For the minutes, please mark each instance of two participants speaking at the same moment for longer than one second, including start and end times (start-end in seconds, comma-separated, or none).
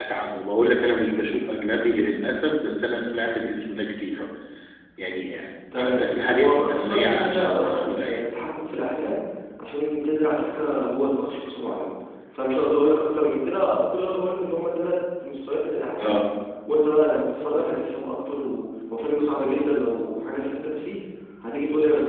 5.8-8.2